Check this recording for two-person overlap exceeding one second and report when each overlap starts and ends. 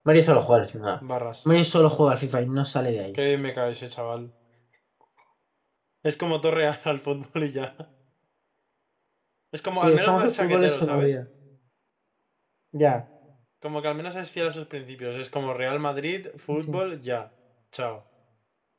9.8-11.2

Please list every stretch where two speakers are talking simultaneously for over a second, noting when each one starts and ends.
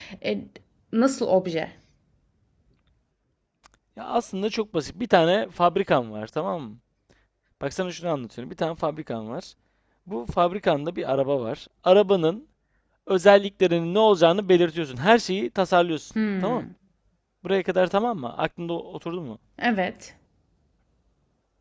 none

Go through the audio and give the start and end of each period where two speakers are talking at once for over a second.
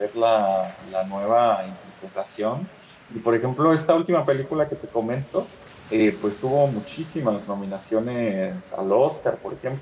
none

